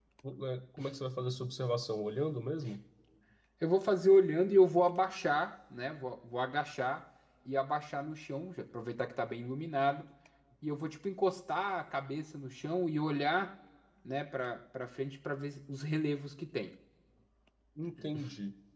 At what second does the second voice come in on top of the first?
none

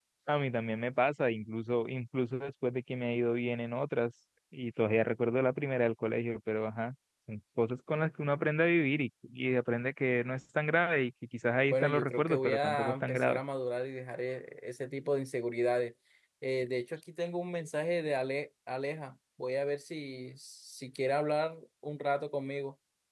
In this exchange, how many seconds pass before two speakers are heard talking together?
12 s

